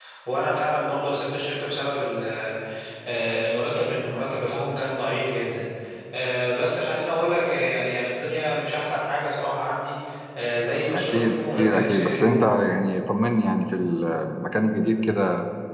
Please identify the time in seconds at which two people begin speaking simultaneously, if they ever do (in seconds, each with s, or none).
10.9 s